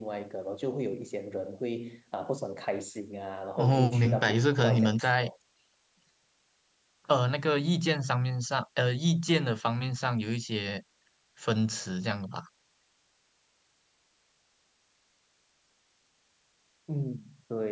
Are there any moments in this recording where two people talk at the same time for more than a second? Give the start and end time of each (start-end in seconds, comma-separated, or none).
3.6-5.3